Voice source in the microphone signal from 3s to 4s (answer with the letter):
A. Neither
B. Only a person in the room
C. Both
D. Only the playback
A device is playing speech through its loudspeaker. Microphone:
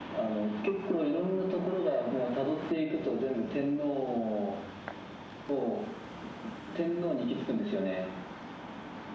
D